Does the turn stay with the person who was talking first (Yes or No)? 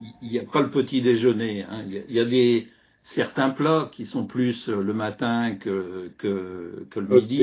No